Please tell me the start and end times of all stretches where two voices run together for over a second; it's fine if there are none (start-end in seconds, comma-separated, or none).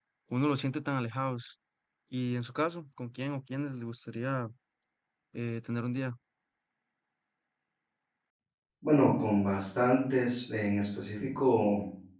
none